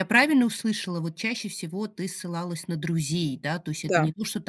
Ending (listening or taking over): listening